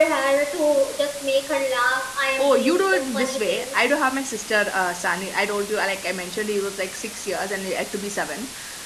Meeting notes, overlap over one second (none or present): present